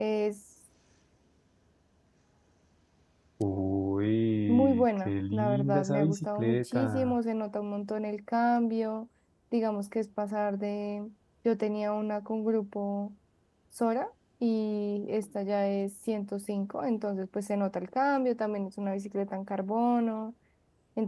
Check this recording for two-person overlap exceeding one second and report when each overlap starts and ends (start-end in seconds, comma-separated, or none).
4.5-7.2